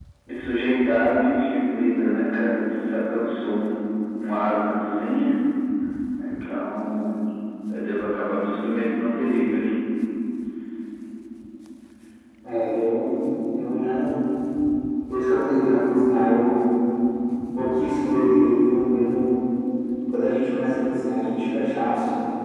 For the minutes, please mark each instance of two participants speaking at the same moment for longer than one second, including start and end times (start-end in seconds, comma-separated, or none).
none